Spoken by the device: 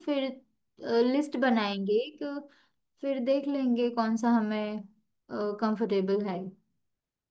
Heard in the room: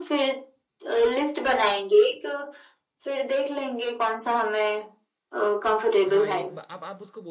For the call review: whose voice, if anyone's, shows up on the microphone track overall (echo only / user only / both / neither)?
both